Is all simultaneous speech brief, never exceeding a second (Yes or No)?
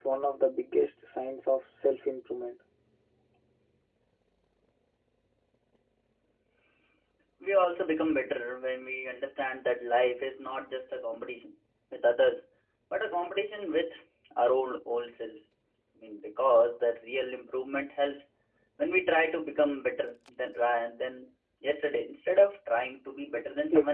Yes